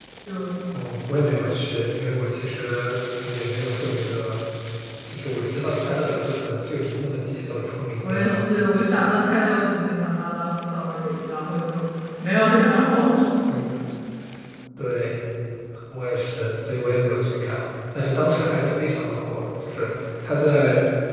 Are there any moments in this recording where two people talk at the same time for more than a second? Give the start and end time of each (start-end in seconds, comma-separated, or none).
none